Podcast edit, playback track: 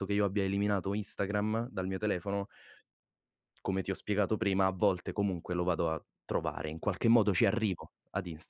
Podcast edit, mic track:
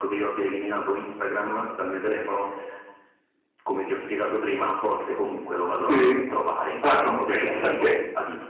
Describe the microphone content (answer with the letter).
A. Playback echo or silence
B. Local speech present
B